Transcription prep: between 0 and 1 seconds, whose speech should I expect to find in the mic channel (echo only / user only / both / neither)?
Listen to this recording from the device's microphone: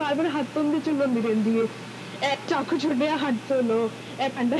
echo only